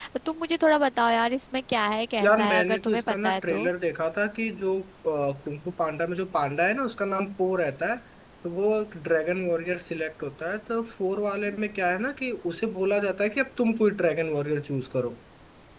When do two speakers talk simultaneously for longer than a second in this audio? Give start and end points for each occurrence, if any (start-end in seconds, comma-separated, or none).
2.2-3.7